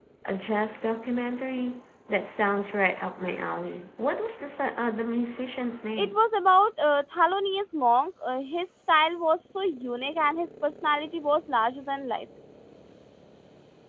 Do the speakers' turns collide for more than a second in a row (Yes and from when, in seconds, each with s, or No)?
No